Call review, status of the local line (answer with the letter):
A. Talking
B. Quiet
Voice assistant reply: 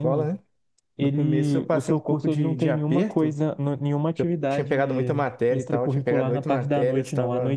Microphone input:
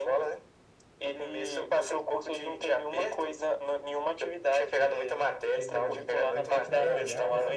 A